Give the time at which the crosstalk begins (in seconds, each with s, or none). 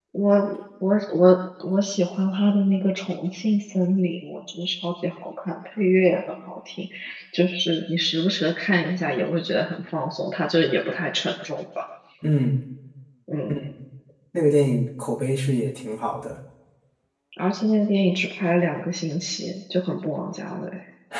none